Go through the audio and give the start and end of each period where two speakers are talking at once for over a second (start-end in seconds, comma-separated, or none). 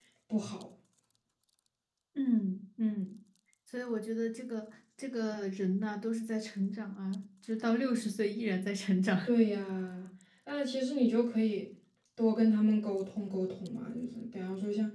none